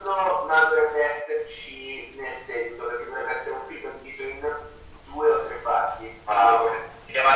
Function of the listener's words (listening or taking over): taking over